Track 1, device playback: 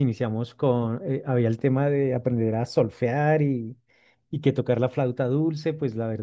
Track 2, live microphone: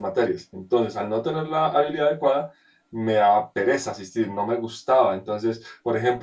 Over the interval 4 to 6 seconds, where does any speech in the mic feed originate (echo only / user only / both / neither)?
user only